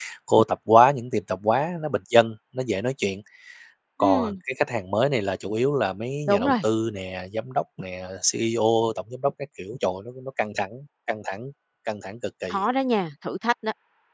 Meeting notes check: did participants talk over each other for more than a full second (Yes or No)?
No